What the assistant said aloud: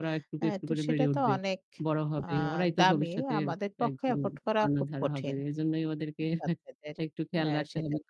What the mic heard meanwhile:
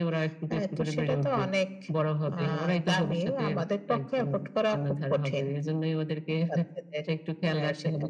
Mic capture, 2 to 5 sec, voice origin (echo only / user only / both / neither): echo only